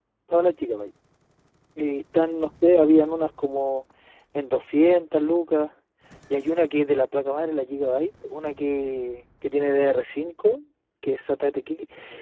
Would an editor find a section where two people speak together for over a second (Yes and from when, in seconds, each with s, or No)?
No